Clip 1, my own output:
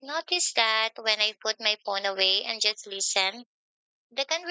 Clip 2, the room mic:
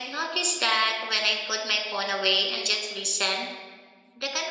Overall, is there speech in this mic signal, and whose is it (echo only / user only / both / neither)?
echo only